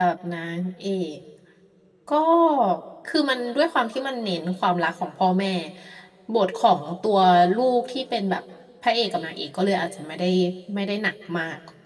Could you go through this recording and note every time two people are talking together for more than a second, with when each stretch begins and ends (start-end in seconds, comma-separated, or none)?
none